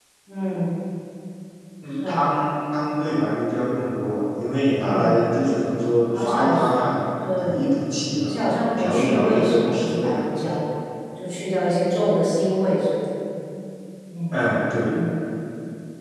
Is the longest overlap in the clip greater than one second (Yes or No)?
Yes